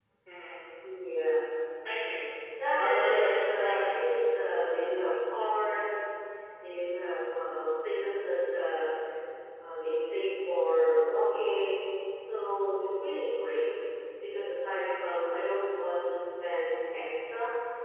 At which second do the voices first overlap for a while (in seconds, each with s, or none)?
2.8 s